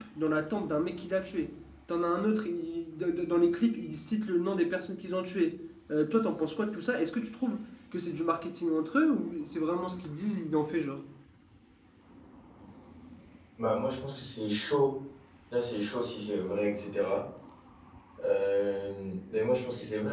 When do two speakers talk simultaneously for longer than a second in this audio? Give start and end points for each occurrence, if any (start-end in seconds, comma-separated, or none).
none